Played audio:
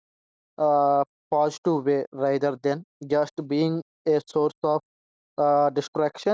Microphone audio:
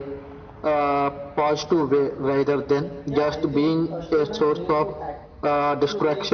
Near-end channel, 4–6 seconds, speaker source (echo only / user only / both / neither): both